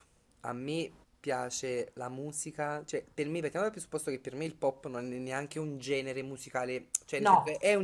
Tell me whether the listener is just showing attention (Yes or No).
Yes